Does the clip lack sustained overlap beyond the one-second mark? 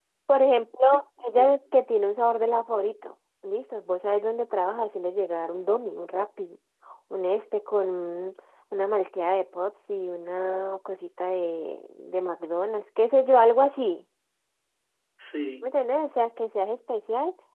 Yes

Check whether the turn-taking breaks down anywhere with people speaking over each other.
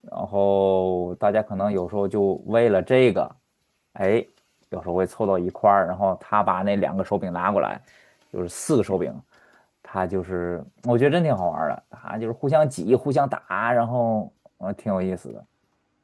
No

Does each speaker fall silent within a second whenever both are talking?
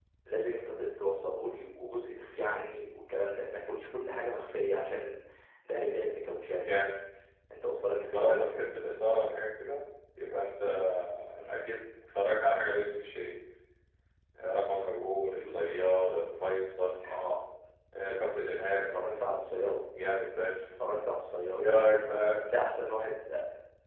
Yes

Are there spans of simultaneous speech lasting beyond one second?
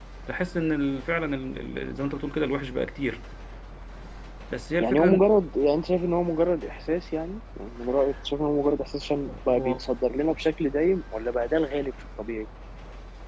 No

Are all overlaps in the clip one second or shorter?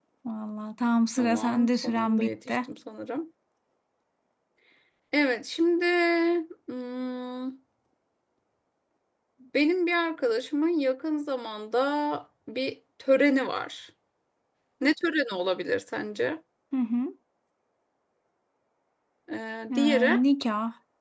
No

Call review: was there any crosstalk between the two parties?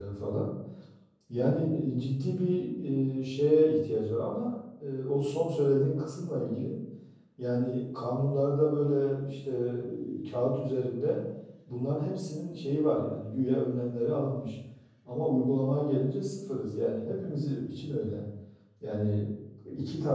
No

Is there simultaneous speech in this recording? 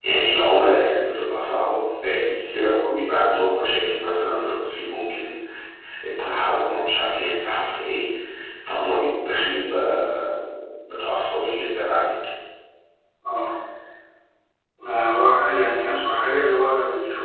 No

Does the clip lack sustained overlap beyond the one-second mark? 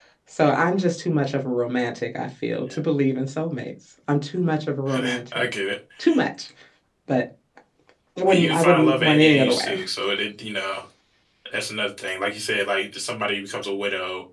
No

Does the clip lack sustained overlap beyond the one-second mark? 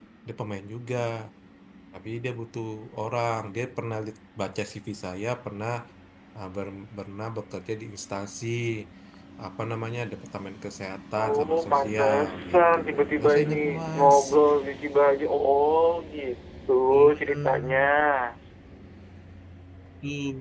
No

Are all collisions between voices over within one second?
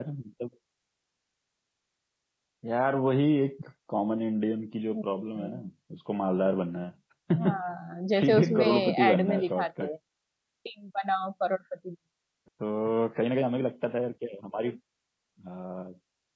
No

